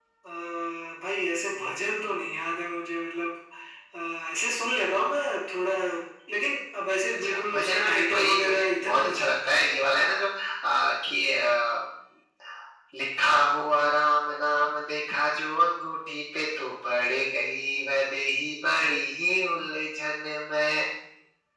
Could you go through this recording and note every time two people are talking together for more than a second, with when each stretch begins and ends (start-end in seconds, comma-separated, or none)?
7.1-9.6